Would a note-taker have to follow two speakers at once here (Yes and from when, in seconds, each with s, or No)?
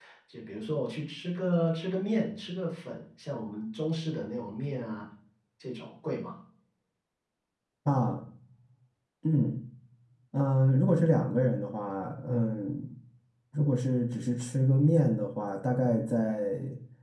No